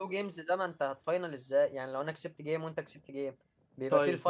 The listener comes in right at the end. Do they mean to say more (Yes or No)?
Yes